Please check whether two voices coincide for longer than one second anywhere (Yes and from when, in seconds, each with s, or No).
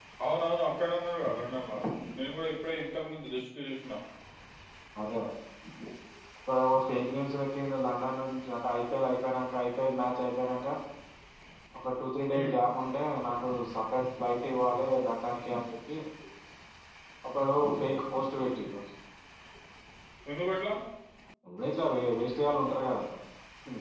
No